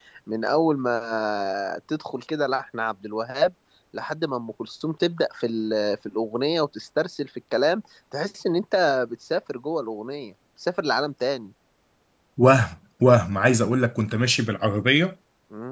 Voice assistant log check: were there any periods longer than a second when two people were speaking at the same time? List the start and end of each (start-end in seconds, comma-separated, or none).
none